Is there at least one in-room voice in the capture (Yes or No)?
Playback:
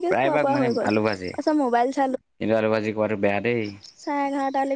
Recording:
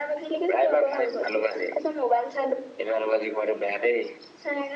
No